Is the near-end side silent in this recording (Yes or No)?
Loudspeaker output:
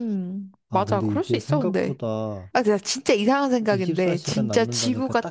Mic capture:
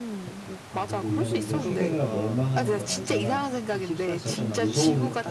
No